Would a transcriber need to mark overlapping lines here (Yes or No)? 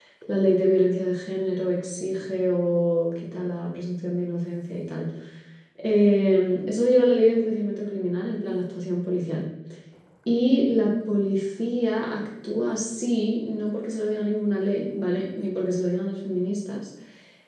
No